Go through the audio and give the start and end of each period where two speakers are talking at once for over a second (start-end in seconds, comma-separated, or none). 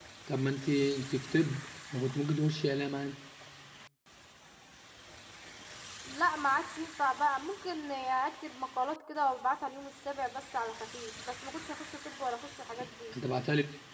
none